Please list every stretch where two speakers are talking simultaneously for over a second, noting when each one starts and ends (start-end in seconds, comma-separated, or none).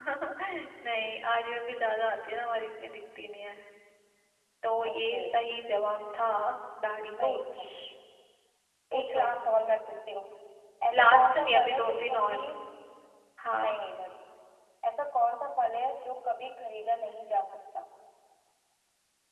11.0-12.4